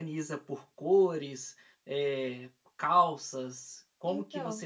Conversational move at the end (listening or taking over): listening